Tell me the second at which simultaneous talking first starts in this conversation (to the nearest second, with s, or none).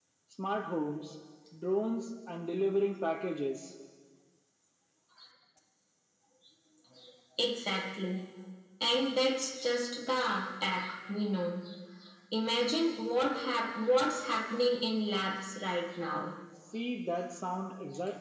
none